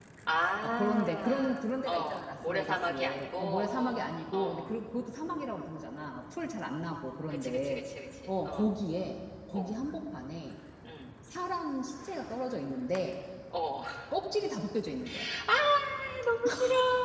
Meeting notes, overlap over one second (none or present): present